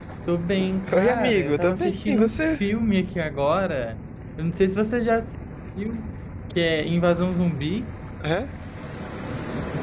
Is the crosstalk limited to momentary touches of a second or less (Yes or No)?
No